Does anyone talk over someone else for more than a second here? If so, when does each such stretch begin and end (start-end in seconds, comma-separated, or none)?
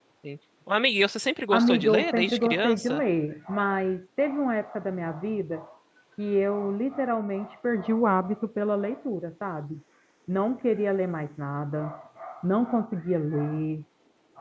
1.5-3.0